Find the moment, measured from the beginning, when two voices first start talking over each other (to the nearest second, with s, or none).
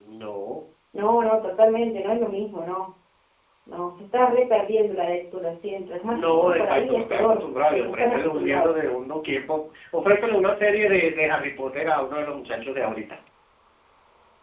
6 s